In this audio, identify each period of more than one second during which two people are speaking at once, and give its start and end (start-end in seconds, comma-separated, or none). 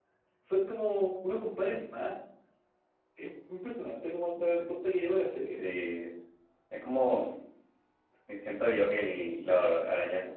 none